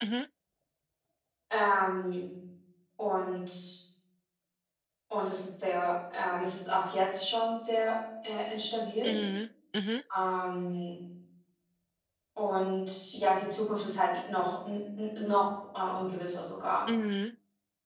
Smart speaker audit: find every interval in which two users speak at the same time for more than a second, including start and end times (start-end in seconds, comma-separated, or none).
none